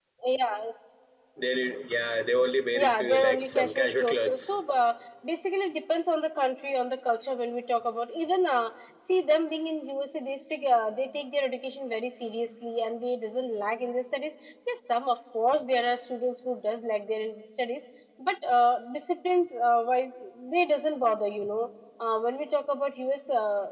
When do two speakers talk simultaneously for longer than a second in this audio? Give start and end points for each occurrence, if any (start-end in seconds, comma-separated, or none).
2.7-4.6